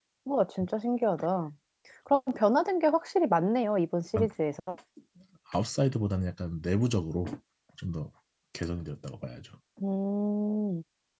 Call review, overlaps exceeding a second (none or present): none